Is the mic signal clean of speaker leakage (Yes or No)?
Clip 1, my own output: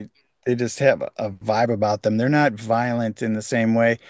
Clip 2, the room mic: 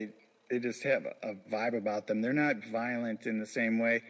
No